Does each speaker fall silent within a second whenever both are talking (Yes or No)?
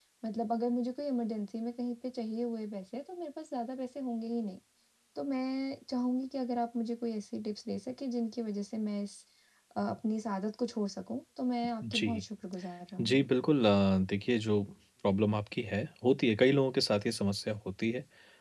Yes